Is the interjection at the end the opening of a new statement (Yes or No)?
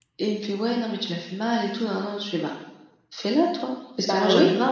No